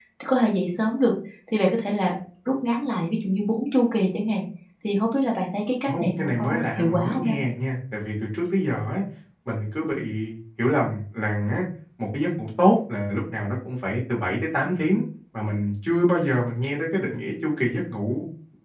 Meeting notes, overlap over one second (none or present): present